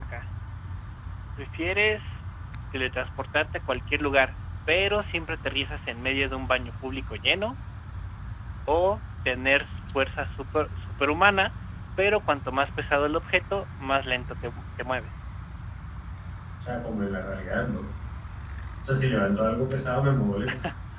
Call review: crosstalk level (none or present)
none